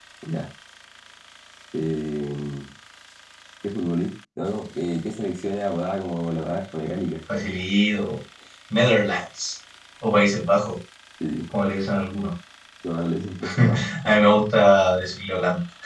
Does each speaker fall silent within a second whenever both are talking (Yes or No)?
Yes